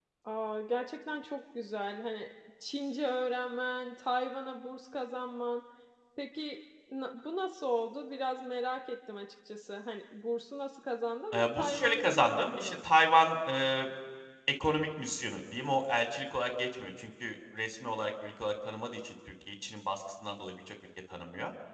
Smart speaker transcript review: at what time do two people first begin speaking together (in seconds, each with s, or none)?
11.3 s